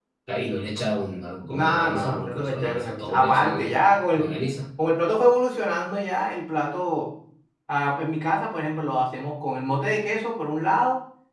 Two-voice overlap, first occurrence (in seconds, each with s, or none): 1.4 s